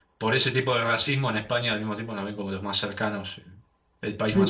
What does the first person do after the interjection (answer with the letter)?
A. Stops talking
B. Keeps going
A